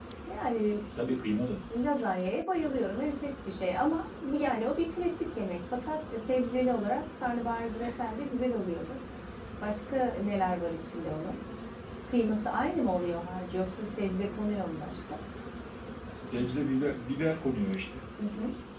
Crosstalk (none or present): none